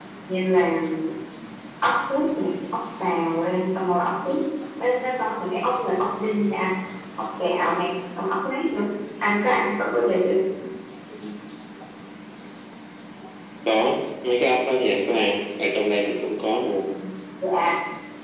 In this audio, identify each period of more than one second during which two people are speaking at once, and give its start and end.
none

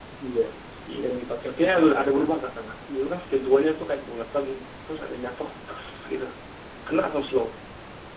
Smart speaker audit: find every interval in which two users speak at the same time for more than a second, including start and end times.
1.0-2.5

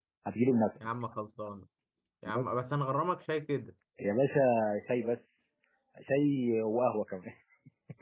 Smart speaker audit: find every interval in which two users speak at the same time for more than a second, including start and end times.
none

